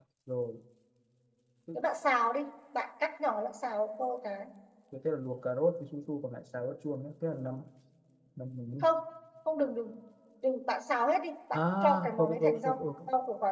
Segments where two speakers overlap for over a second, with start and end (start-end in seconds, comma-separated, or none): 11.5-12.9